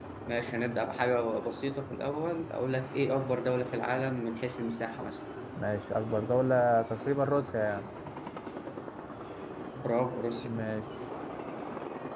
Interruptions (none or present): none